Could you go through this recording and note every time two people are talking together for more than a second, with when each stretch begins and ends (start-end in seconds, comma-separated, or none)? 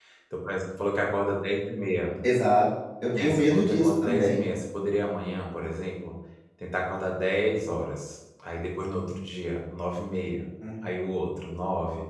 3.1-4.4